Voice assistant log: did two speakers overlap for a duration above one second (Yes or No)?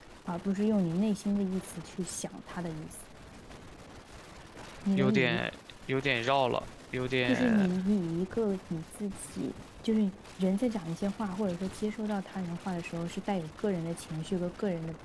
No